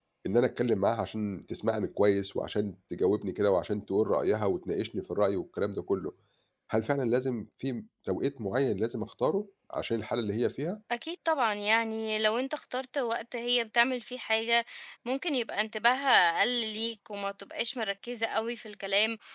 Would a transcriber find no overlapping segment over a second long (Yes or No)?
Yes